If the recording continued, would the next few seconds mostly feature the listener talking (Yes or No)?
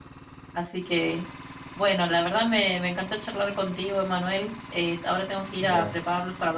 No